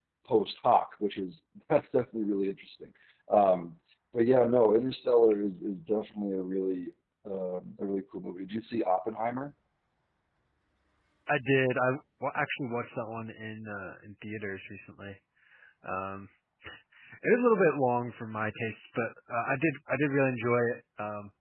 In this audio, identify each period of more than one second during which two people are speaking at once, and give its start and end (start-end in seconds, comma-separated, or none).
none